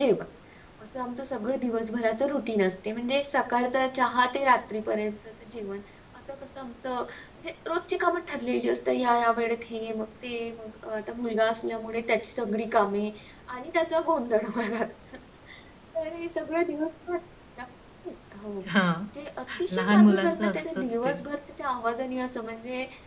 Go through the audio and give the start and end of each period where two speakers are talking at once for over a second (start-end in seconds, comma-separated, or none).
19.8-21.2